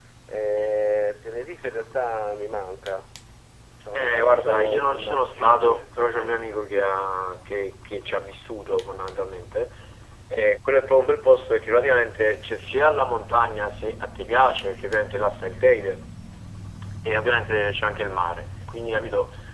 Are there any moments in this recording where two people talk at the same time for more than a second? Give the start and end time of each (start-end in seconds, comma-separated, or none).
3.9-6.6